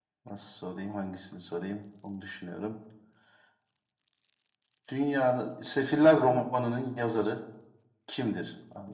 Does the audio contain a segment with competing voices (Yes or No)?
No